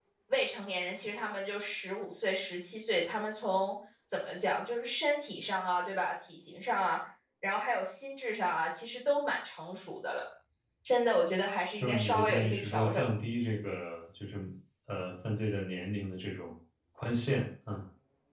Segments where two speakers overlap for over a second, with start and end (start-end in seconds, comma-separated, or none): 11.8-13.0